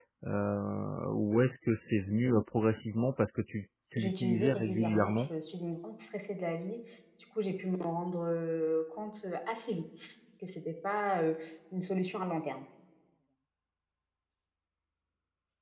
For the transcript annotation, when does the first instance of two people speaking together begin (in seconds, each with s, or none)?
4.0 s